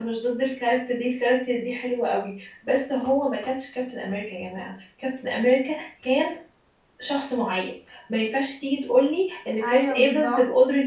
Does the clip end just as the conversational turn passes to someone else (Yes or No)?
No